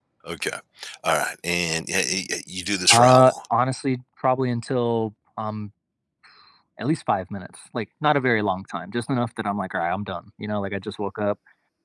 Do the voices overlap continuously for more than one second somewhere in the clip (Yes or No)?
No